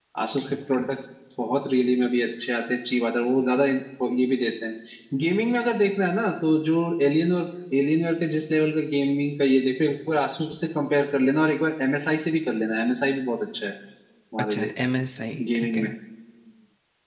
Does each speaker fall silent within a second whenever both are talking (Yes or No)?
Yes